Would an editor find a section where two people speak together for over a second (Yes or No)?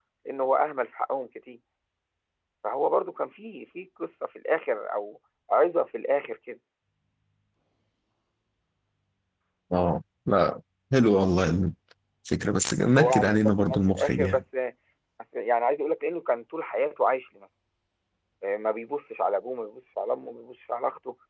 Yes